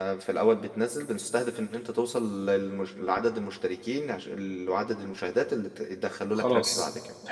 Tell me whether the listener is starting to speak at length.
Yes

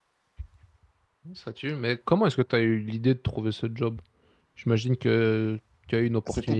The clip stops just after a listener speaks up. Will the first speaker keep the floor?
No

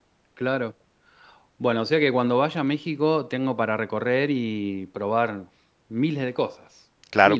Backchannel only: No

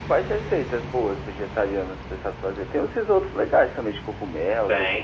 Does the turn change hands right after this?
Yes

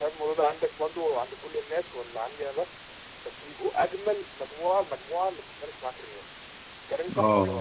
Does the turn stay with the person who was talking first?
No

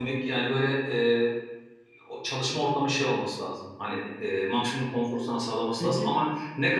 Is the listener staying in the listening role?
Yes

